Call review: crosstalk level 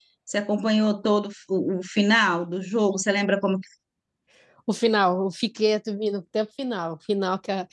none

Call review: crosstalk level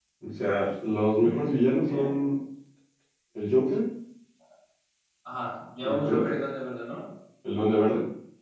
present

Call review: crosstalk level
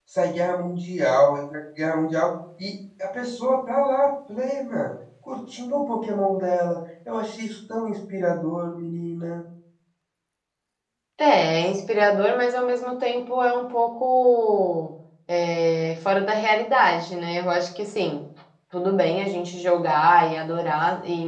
none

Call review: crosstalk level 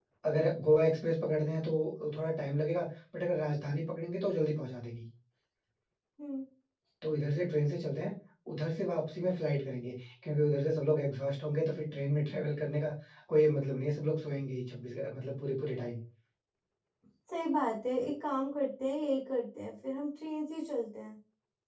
none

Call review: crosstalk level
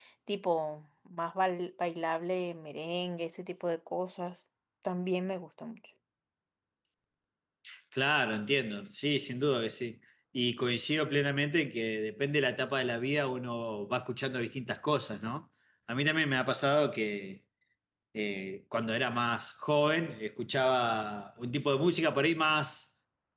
none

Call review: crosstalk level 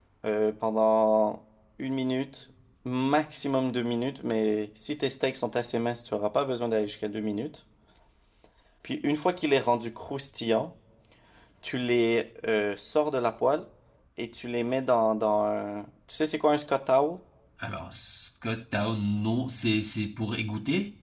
none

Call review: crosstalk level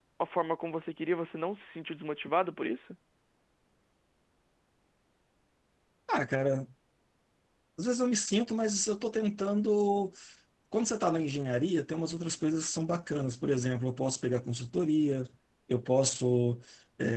none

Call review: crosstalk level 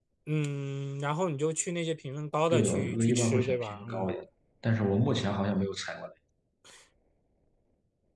present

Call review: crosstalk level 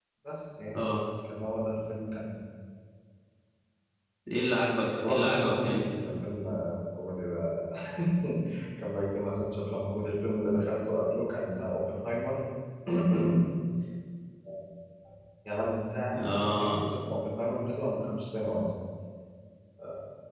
present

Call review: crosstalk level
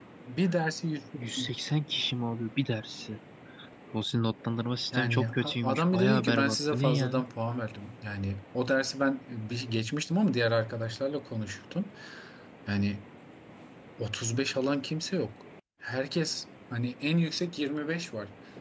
present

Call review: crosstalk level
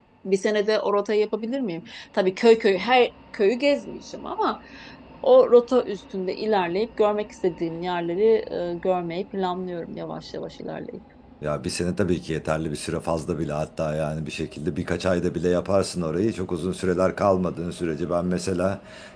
none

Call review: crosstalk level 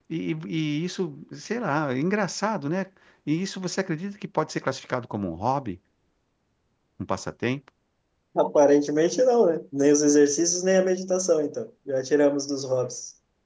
none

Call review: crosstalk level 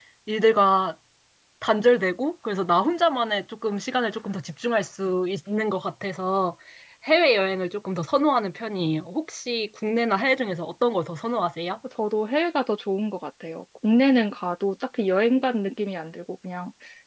none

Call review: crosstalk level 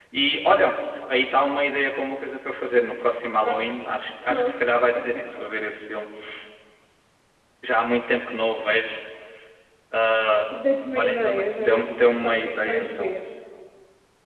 present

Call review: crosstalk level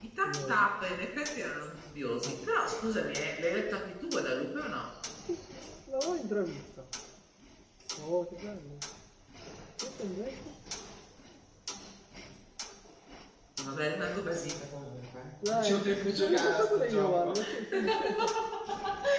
present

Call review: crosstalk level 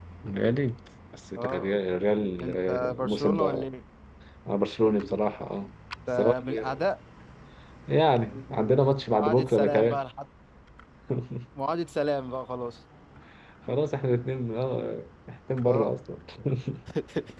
present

